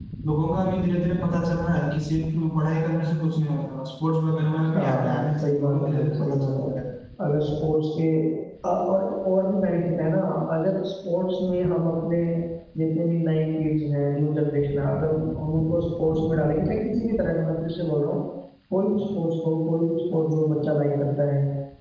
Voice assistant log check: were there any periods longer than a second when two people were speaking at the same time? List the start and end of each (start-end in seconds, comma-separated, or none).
4.7-6.7